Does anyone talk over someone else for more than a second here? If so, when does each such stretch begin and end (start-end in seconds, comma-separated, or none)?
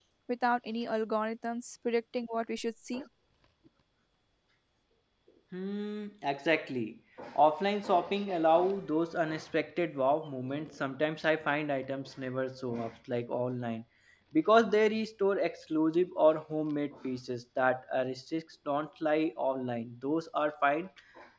none